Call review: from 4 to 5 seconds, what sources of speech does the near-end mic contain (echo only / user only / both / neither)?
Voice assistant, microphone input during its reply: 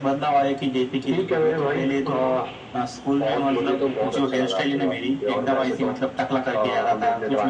echo only